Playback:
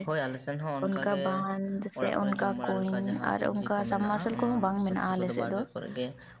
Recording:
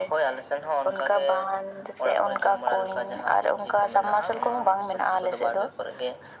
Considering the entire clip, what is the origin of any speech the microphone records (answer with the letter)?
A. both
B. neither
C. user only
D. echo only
D